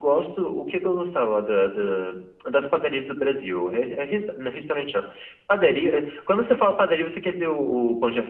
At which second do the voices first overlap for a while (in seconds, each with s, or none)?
none